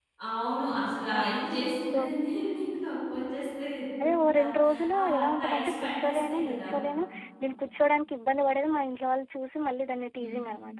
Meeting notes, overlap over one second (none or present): present